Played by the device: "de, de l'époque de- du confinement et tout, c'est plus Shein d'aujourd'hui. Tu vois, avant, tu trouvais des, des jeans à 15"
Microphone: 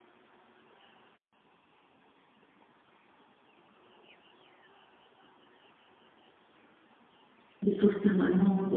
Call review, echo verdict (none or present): none